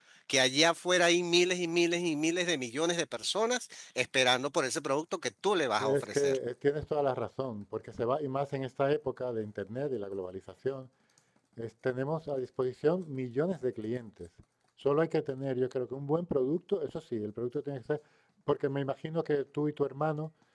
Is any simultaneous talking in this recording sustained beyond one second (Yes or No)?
No